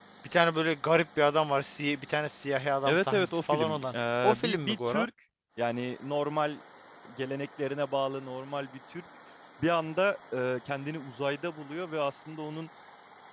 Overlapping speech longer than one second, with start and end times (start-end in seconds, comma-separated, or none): 2.9-5.1